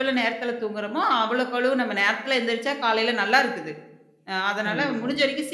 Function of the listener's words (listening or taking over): listening